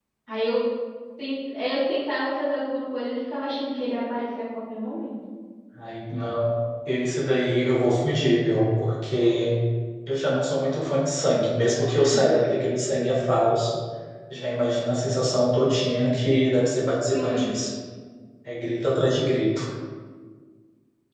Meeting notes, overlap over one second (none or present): none